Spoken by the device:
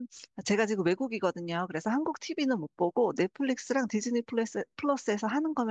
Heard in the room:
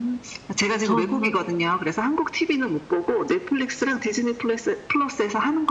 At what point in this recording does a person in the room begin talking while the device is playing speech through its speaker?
0.8 s

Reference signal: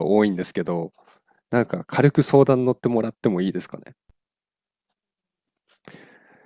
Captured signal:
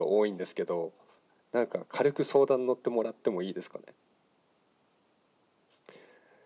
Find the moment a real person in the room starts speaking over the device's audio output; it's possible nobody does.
none

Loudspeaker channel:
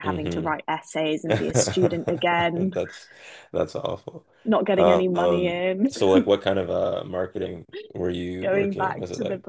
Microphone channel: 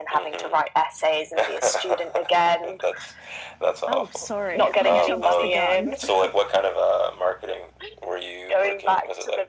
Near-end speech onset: 3.9 s

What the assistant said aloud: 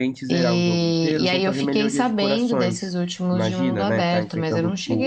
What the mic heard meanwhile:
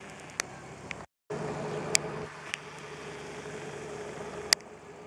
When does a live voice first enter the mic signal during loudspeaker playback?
none

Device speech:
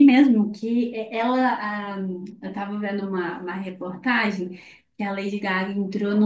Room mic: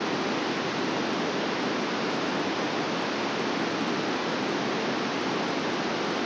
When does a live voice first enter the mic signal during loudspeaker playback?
none

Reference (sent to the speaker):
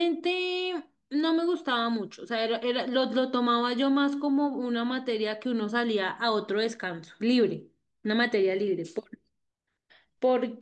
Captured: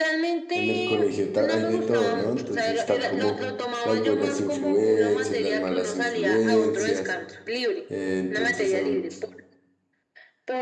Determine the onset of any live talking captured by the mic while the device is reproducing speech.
0.5 s

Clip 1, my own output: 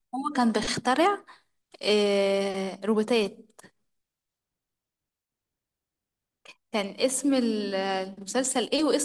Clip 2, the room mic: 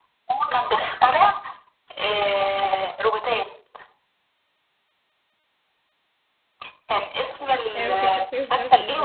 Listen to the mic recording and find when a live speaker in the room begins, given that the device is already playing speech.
7.8 s

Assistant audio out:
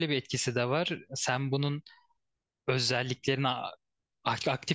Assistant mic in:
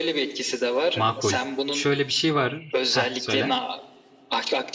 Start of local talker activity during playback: 0.9 s

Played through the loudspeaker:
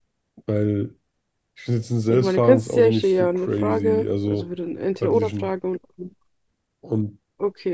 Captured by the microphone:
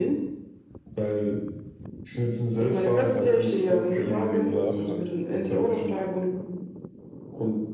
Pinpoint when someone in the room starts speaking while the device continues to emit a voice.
2.7 s

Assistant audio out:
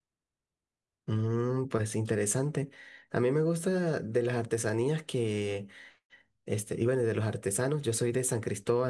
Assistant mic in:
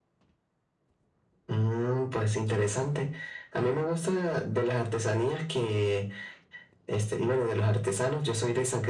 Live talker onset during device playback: none

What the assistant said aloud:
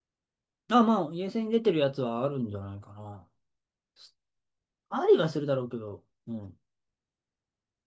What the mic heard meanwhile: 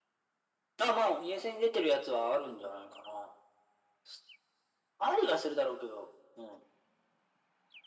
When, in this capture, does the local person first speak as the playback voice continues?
none

